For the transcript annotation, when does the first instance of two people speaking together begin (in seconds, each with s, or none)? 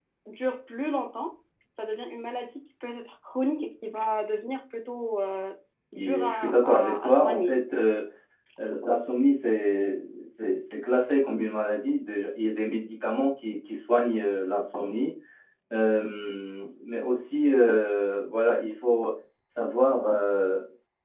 6.0 s